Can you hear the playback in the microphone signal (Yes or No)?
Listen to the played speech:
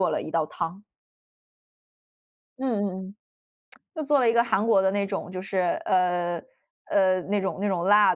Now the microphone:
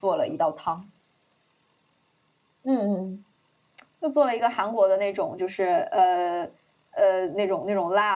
Yes